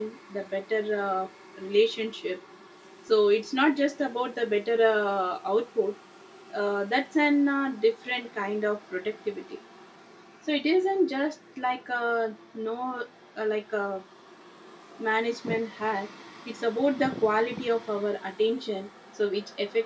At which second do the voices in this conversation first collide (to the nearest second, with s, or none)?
none